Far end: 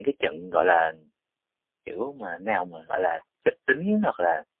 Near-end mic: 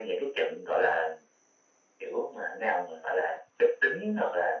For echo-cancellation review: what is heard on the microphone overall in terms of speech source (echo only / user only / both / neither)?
echo only